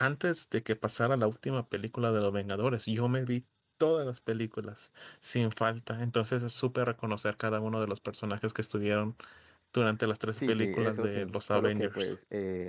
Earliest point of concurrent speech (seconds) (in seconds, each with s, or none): 10.3 s